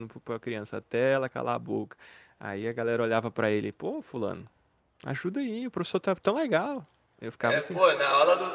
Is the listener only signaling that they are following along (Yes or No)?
No